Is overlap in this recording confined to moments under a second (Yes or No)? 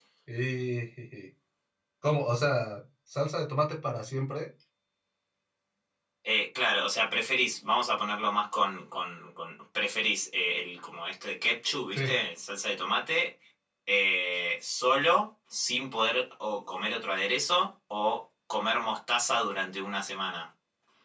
Yes